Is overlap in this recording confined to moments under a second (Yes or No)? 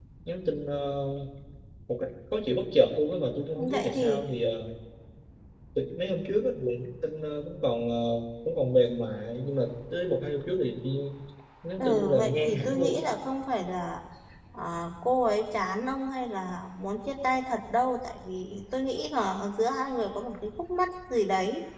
No